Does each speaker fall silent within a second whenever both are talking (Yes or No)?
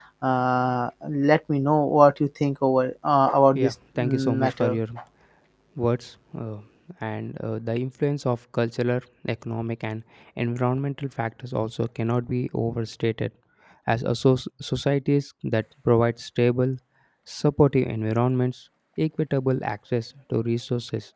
No